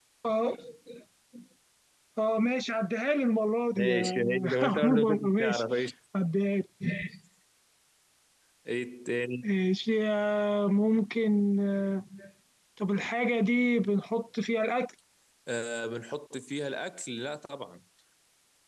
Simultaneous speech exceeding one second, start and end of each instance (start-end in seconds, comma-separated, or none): 3.7-5.6